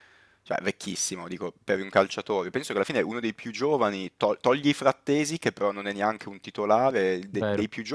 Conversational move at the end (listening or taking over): listening